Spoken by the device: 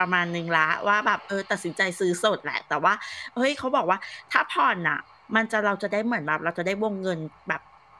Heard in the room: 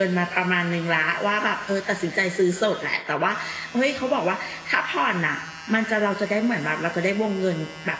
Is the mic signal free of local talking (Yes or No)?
Yes